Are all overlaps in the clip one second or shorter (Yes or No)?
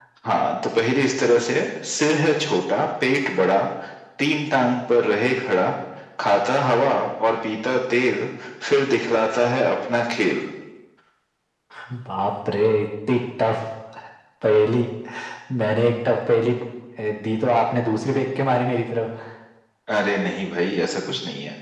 Yes